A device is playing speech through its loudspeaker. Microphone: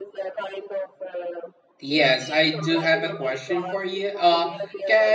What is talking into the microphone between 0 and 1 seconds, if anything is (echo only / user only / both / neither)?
echo only